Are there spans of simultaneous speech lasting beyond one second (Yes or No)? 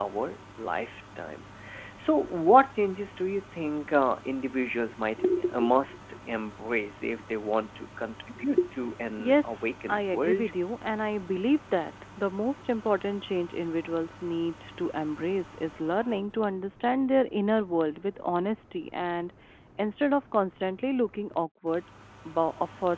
Yes